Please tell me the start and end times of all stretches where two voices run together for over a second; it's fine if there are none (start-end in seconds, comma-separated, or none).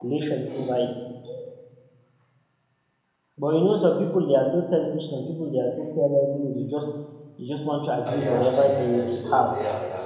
8.1-9.5